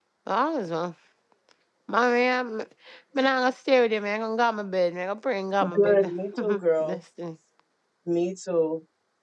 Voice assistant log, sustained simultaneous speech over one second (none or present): present